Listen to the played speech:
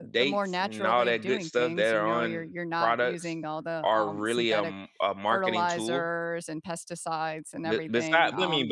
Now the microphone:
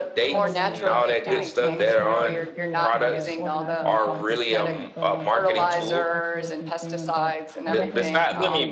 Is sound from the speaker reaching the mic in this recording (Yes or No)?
Yes